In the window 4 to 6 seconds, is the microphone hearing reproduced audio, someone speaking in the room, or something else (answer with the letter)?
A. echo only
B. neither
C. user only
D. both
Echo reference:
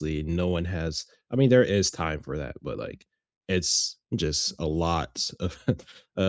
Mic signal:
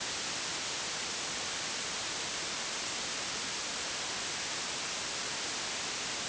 B